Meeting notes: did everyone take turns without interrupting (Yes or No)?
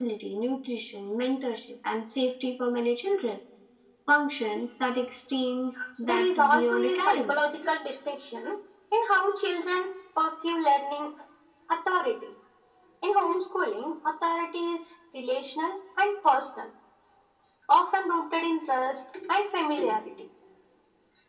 No